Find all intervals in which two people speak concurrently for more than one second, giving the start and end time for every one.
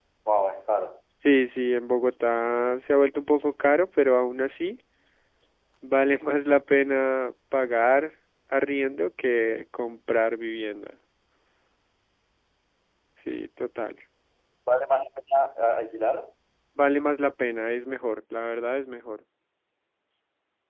none

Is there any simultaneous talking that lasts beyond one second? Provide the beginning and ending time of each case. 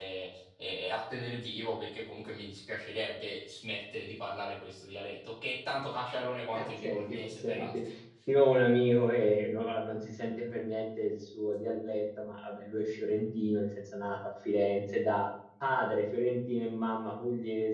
6.5-7.8

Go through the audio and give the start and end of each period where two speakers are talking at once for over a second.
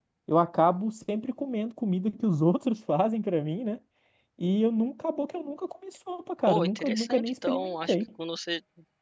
6.5-8.0

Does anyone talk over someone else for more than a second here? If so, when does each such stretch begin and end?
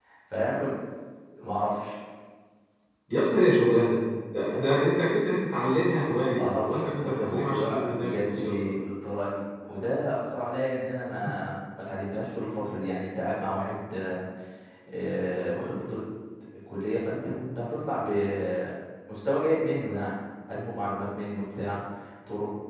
6.0-8.7

